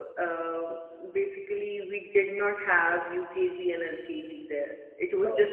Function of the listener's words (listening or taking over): listening